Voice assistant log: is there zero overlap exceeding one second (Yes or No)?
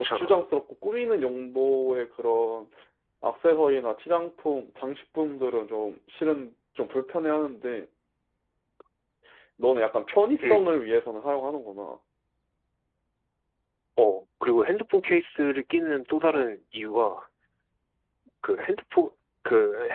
Yes